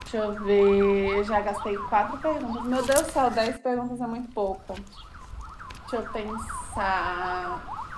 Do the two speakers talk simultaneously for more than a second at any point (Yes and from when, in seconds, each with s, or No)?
No